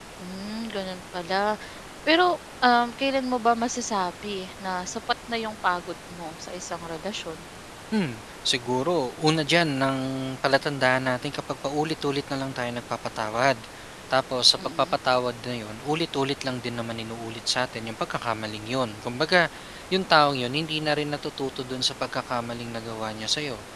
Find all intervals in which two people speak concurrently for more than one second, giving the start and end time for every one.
none

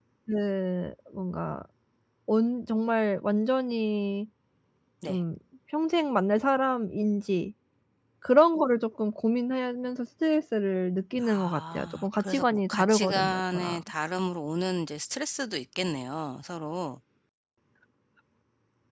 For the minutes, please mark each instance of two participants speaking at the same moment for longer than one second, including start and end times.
11.3-13.8

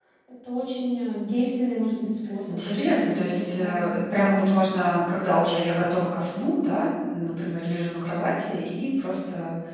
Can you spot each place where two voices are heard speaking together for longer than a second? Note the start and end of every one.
2.5-3.9

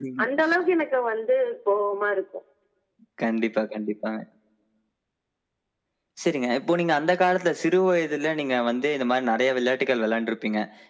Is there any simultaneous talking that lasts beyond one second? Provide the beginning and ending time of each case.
none

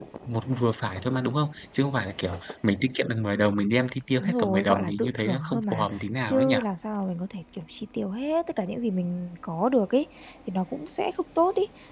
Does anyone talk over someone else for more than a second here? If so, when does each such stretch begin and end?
4.2-5.8

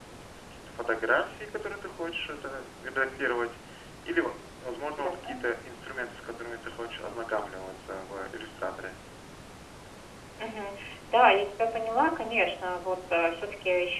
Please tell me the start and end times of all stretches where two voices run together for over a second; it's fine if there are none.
none

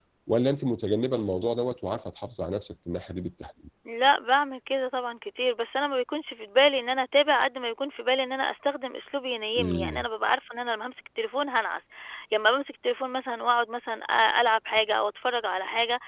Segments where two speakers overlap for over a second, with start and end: none

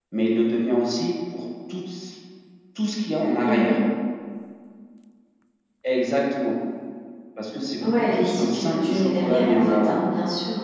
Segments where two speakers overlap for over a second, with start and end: 7.8-10.0

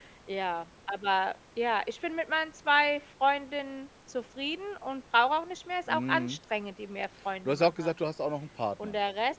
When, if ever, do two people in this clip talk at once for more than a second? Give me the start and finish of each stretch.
none

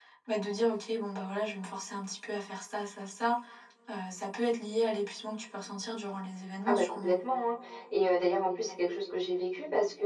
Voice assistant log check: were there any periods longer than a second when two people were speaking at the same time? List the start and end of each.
none

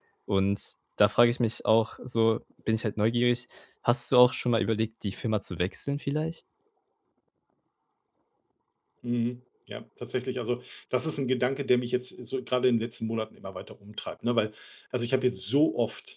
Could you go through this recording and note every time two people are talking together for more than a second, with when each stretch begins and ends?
none

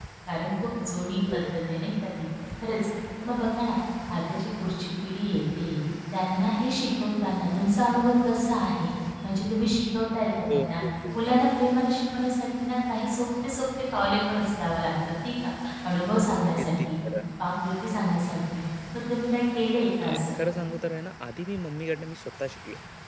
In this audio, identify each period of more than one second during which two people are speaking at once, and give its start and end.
none

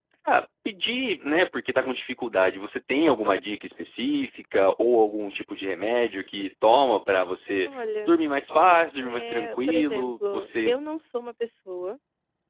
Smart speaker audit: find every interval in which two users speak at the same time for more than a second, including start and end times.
9.0-10.8

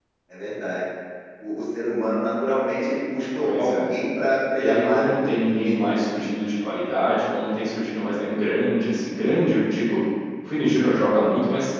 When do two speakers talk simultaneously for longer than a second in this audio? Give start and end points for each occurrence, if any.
4.6-6.3

